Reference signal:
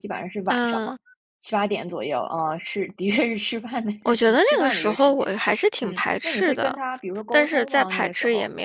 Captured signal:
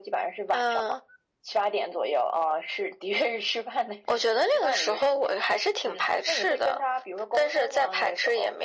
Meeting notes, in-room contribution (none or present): none